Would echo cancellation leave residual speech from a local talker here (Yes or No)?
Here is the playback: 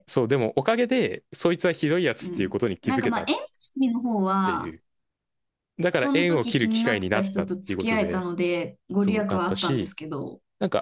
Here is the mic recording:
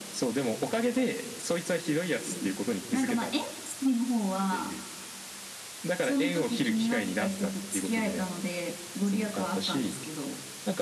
No